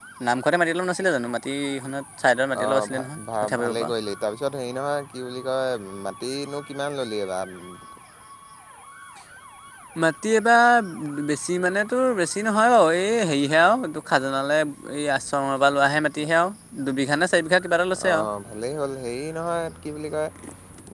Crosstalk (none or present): present